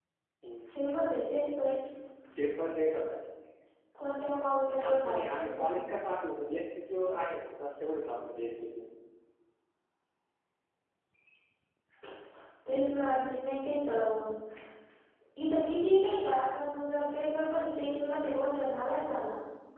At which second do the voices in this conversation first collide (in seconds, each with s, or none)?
4.7 s